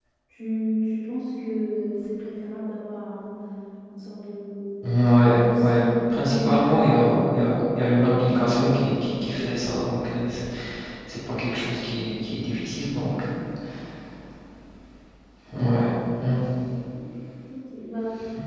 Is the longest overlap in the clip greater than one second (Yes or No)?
Yes